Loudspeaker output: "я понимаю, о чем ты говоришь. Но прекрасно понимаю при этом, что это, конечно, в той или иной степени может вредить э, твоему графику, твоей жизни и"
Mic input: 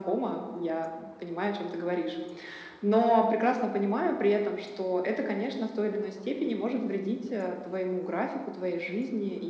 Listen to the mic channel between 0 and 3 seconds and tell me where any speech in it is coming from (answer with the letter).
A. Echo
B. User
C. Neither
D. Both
A